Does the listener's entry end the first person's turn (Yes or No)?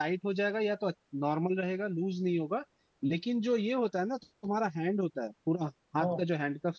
No